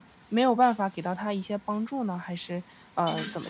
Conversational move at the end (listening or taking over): taking over